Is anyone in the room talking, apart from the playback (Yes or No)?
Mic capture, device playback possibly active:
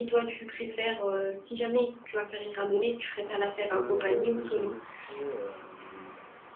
No